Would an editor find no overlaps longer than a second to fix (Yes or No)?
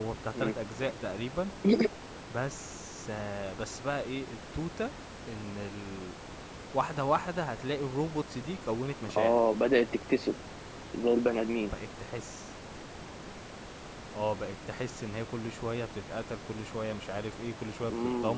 Yes